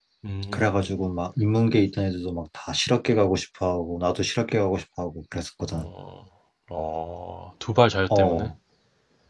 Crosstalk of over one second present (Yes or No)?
No